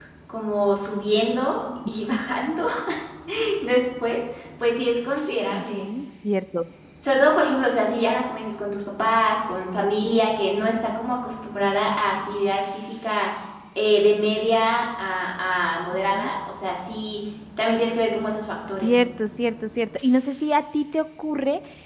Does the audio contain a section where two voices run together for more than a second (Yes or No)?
No